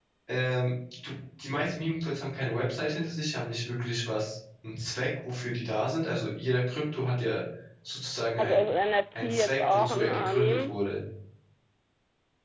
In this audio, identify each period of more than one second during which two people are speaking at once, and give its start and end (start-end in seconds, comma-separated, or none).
9.2-10.7